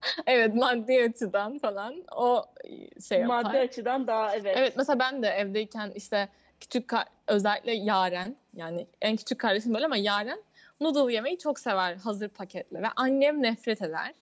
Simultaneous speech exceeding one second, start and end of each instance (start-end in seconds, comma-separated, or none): none